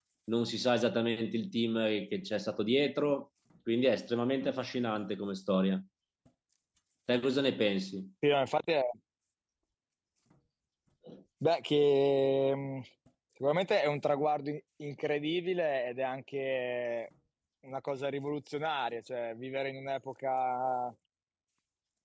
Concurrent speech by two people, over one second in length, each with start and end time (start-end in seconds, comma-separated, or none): none